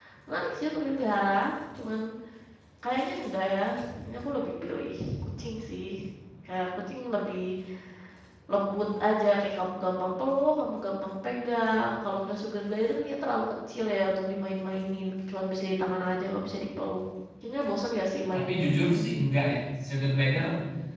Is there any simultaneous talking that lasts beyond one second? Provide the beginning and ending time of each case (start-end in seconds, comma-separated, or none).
none